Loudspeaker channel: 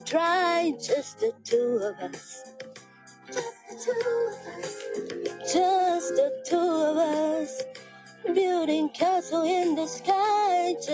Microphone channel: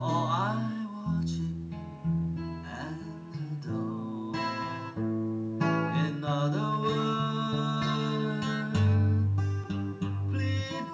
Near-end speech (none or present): present